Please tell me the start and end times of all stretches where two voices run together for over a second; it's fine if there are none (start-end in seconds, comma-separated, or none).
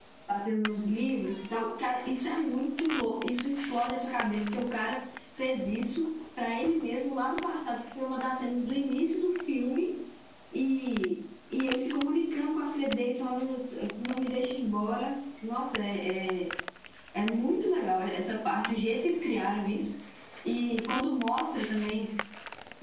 none